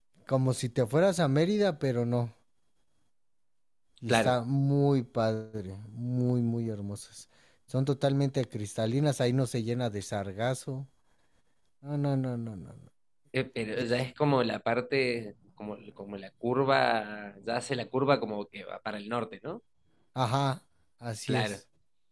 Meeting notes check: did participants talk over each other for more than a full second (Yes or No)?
No